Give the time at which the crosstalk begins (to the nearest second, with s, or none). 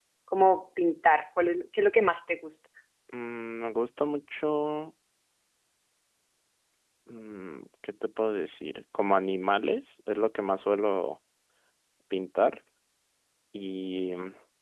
none